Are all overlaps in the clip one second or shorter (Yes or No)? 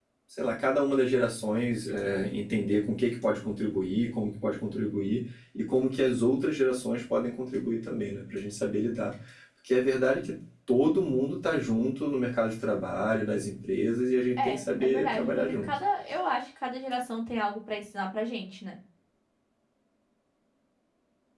No